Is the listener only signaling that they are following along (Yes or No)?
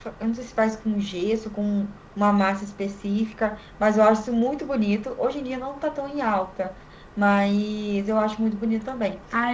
No